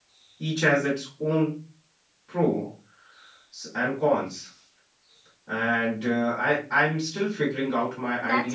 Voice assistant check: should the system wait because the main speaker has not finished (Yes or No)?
No